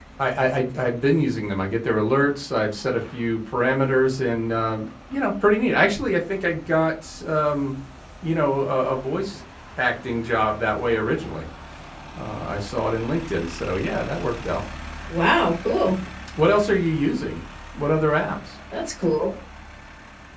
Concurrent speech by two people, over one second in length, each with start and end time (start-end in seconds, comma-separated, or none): none